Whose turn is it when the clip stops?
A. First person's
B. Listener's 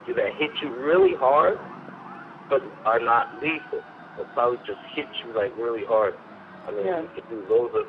A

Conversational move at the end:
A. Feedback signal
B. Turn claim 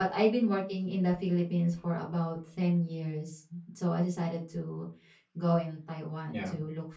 A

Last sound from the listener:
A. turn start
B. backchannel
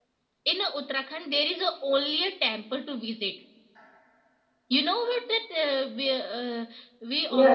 B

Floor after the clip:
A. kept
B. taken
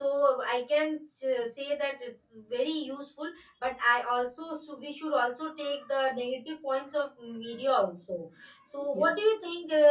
A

